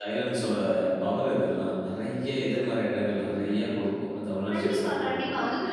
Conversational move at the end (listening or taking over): taking over